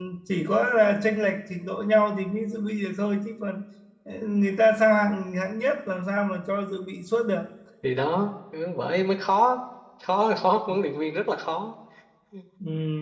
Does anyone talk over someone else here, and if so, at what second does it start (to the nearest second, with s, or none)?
none